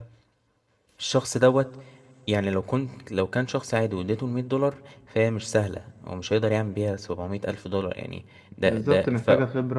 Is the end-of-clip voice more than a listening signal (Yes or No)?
Yes